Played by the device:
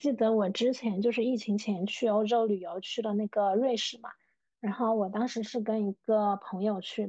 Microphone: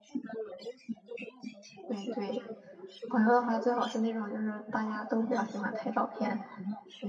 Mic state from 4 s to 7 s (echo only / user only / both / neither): both